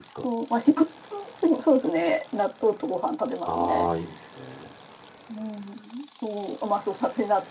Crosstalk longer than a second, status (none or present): none